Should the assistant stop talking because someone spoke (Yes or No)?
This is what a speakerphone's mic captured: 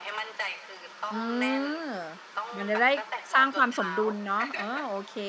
Yes